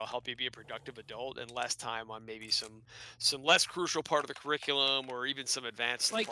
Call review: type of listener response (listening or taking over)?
taking over